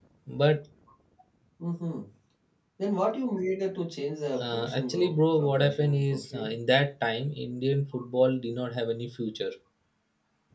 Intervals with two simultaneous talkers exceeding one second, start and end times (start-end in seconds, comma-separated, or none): 4.4-6.5